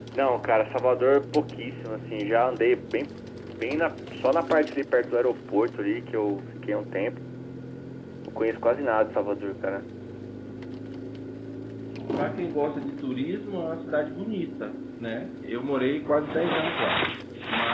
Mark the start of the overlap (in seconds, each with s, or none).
none